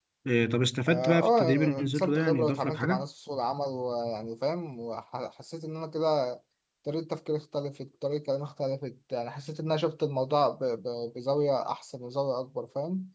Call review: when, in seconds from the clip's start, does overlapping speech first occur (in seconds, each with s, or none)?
0.9 s